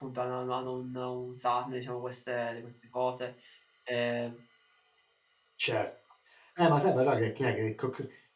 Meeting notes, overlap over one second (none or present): none